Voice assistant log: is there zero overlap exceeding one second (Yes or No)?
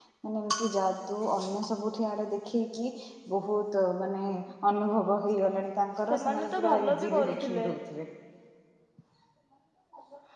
No